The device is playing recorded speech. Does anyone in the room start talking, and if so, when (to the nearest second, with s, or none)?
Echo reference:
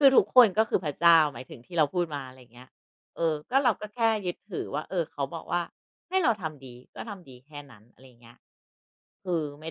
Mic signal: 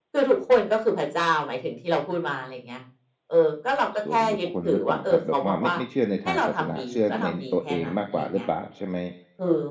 4 s